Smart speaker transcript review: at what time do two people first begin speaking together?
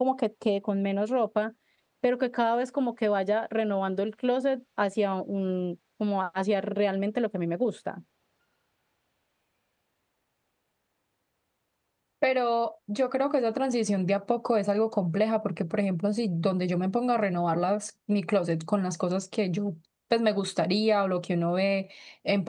none

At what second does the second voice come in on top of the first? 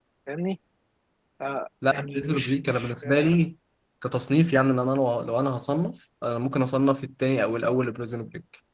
1.9 s

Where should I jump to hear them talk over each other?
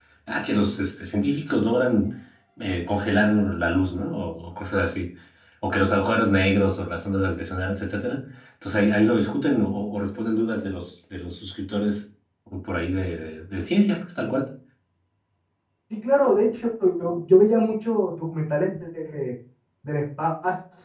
none

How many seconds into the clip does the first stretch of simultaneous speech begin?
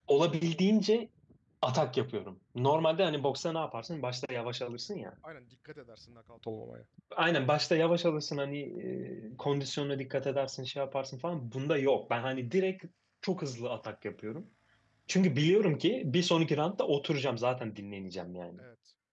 none

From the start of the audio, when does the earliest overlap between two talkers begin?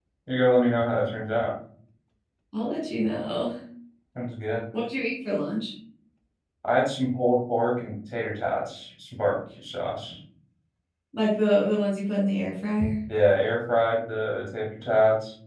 none

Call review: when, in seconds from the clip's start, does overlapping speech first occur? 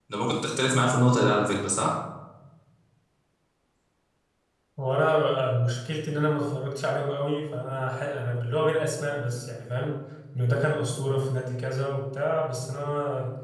none

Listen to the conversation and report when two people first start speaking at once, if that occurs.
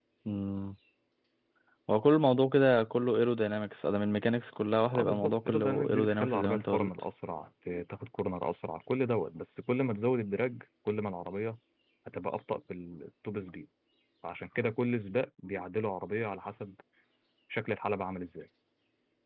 4.9 s

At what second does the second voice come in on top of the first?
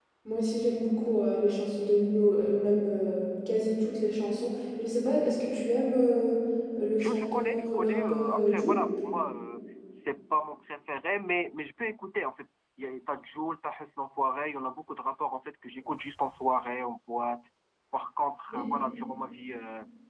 7.0 s

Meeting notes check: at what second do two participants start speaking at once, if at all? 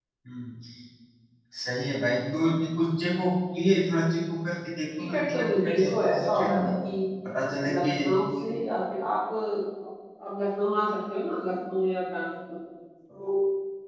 5.0 s

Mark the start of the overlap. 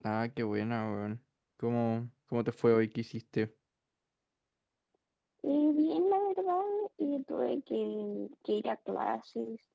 none

